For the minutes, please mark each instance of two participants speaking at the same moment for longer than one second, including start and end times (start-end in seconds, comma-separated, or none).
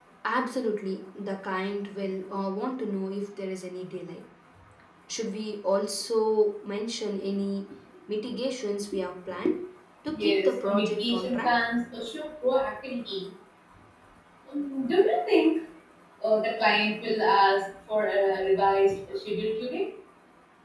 10.1-11.5